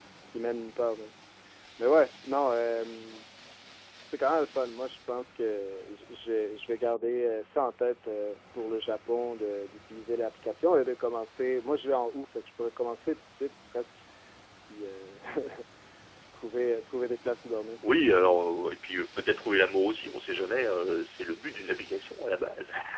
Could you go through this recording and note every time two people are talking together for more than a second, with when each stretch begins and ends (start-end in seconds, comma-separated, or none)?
none